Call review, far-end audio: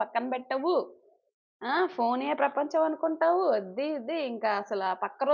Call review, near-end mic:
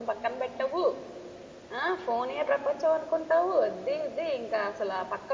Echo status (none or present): present